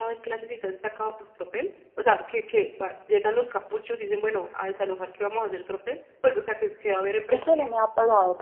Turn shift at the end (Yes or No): Yes